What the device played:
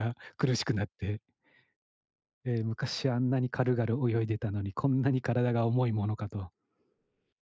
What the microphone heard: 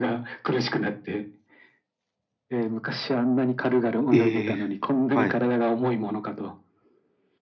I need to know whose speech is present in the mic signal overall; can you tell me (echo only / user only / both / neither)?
both